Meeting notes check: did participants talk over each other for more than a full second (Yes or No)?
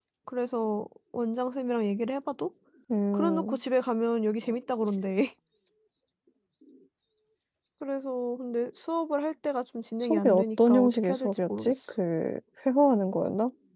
Yes